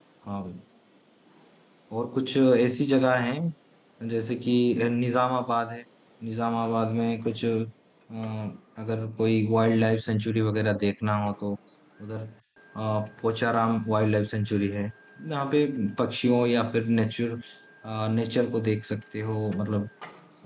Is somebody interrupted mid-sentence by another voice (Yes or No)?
No